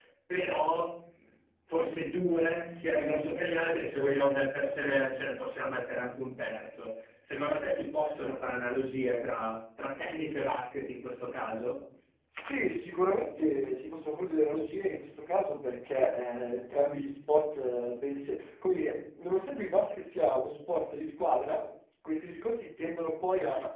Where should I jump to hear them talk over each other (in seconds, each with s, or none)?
none